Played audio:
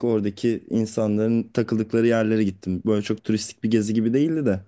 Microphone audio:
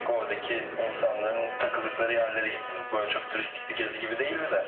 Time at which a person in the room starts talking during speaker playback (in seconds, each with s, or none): none